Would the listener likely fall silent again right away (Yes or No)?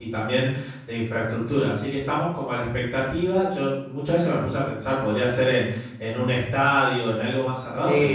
No